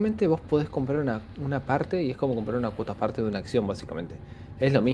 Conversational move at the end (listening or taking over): listening